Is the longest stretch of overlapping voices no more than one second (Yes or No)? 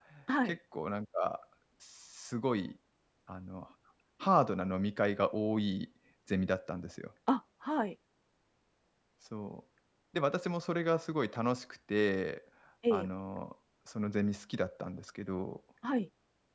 Yes